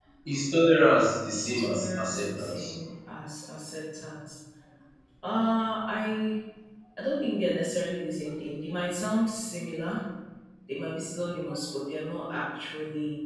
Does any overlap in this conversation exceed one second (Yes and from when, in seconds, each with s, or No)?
Yes, from 1.3 s